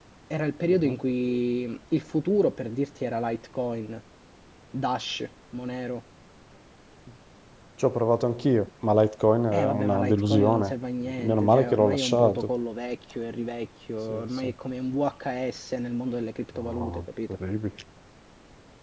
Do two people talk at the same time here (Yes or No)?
Yes